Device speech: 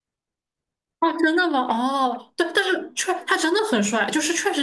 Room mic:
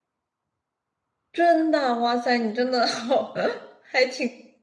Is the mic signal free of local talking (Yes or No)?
No